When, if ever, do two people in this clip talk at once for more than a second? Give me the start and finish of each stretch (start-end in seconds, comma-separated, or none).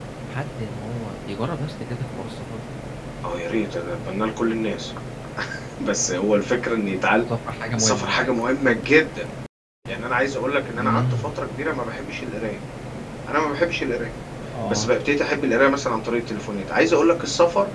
none